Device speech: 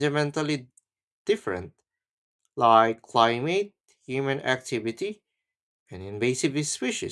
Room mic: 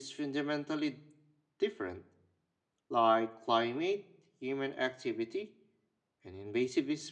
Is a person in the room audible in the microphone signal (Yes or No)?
No